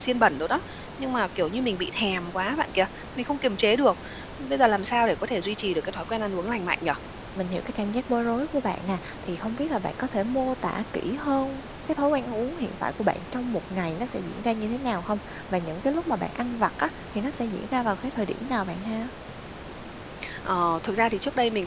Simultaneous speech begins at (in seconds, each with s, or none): none